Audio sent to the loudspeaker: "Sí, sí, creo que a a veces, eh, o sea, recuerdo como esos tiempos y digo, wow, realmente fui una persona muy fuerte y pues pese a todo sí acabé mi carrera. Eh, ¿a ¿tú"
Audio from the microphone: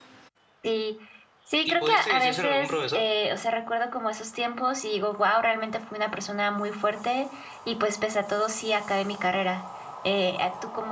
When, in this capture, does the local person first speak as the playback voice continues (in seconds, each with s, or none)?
1.6 s